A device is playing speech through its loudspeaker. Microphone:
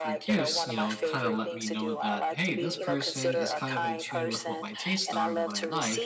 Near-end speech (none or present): present